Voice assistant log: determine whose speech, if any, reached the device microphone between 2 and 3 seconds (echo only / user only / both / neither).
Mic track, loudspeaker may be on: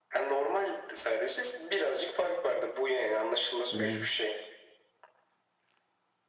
echo only